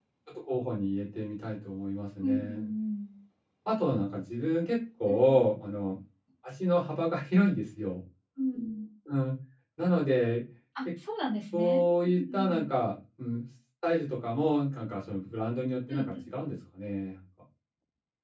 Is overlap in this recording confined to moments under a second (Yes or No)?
Yes